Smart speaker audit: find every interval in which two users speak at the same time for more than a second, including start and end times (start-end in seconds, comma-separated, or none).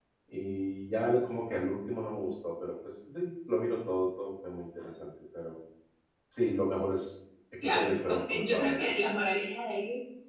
7.6-9.2